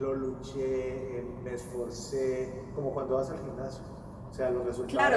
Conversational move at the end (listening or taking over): taking over